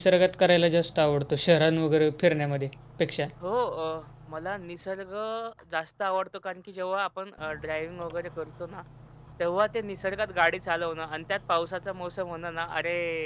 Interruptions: none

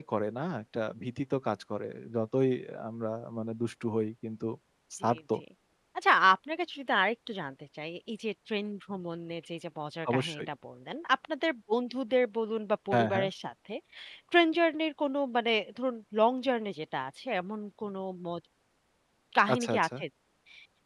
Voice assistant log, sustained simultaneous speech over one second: none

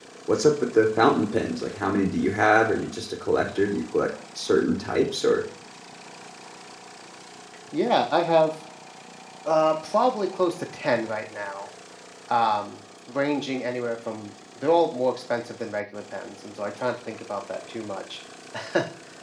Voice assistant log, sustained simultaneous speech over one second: none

